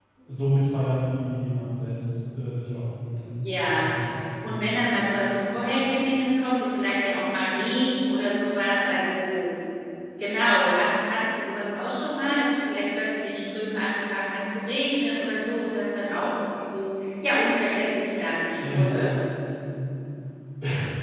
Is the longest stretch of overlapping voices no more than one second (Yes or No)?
Yes